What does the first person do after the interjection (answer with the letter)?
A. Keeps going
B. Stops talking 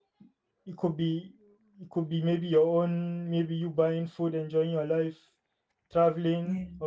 A